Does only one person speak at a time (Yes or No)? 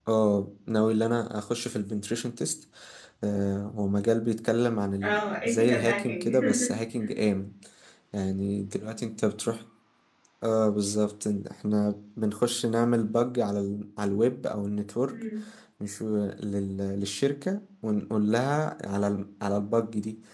No